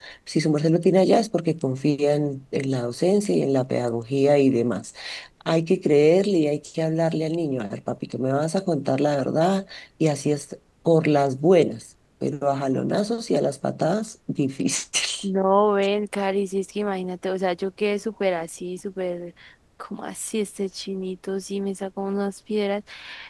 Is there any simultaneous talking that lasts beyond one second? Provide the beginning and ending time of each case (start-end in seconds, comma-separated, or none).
none